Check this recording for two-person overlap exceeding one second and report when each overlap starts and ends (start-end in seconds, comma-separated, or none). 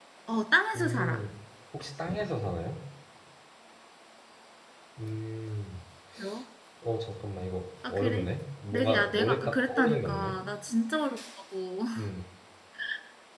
8.7-10.4